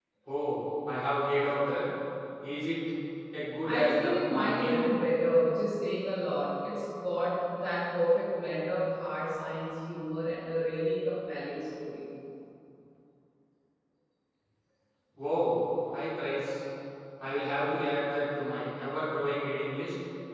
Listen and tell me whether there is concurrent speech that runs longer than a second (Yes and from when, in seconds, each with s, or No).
Yes, from 3.6 s